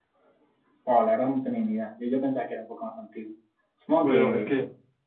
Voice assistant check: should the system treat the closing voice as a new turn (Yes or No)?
Yes